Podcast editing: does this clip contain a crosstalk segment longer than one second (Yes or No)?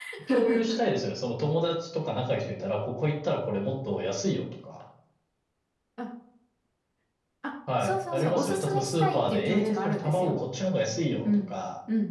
Yes